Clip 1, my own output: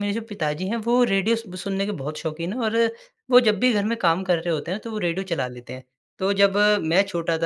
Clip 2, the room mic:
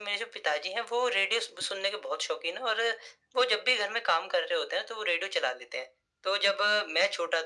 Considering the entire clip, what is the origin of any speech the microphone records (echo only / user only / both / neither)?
echo only